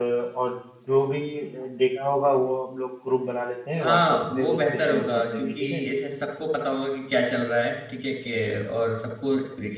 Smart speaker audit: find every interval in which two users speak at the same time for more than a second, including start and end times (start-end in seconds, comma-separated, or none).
3.8-5.8